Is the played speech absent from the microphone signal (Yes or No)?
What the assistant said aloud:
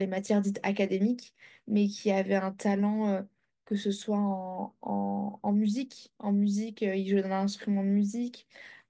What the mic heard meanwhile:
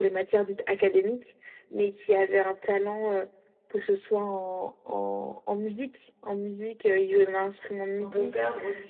No